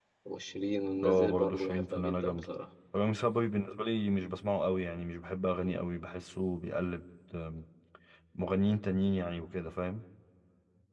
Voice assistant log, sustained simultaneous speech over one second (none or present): present